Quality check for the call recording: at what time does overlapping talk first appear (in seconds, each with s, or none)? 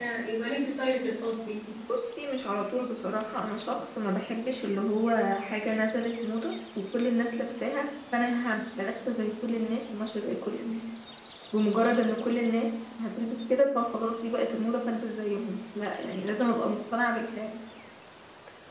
none